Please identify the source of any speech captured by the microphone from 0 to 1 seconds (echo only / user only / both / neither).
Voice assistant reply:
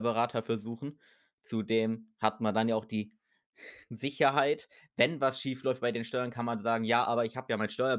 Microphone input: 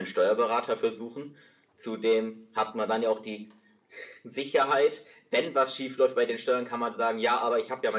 echo only